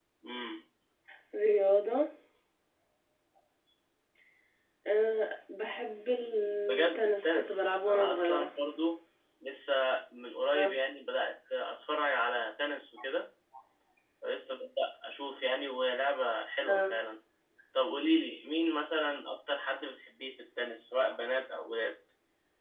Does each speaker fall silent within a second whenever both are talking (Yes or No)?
No